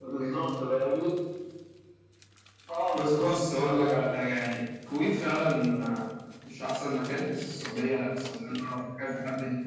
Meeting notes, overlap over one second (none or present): present